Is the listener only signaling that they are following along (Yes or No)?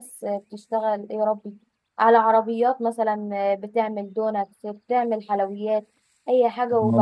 No